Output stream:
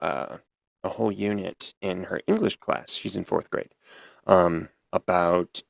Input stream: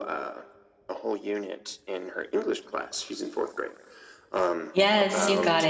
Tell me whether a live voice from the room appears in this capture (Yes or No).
Yes